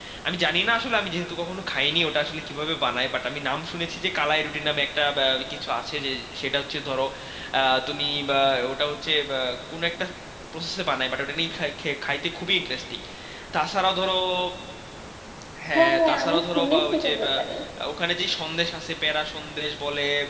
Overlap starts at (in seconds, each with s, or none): 15.8 s